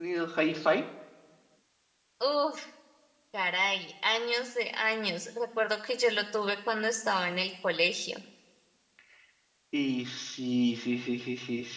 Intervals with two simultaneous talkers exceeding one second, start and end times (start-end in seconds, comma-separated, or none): none